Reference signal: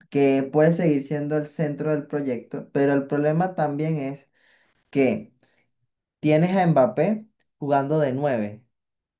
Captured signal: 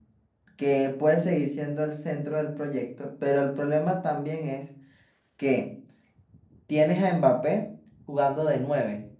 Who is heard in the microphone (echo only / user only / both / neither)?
echo only